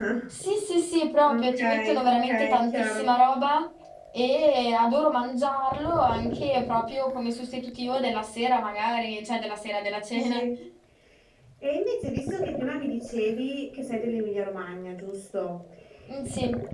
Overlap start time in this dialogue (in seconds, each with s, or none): 1.3 s